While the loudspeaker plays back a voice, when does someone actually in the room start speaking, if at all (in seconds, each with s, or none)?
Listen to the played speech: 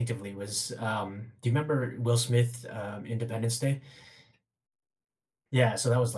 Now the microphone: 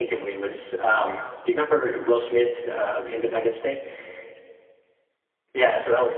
none